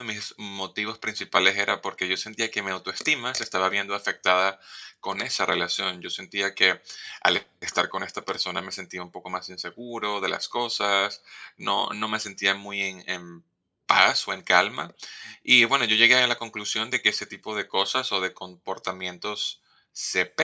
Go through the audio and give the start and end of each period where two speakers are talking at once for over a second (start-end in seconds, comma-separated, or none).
none